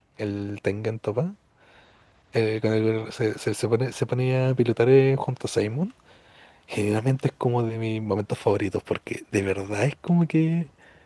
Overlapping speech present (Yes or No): No